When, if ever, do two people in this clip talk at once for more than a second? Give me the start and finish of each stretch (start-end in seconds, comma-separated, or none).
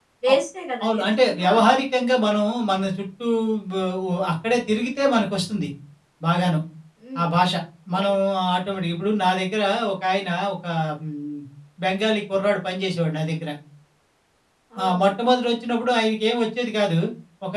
0.8-2.0